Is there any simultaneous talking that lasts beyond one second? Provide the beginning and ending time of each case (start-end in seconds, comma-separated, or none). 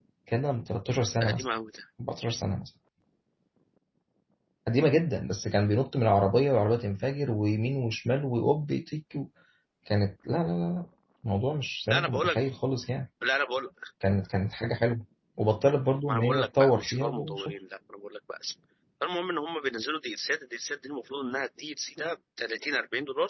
16.1-17.5